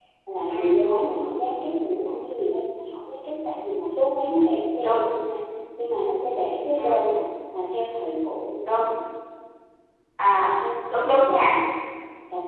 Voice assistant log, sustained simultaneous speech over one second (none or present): none